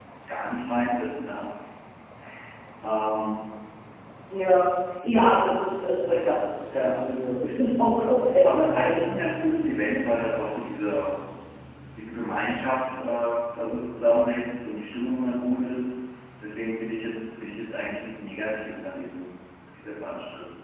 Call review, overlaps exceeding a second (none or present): none